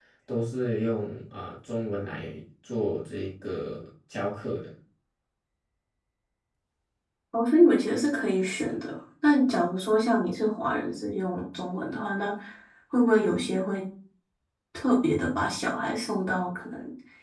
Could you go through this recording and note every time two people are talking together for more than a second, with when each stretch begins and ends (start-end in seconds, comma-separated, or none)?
none